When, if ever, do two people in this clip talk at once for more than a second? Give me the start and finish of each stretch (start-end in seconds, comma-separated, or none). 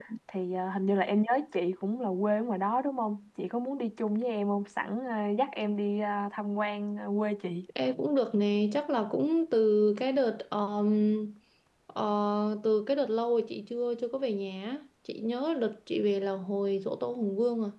none